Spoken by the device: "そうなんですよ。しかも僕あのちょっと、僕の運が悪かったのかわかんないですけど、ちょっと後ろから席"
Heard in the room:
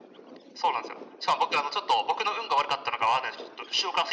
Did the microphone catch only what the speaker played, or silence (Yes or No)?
Yes